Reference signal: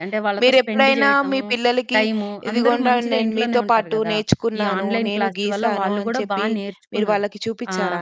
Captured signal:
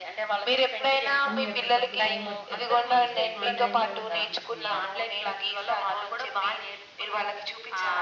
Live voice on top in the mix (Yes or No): No